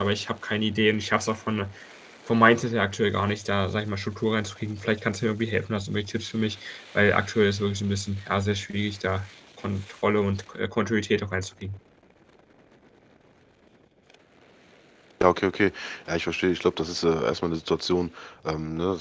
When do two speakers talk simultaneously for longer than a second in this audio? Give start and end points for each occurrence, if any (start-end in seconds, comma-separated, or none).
none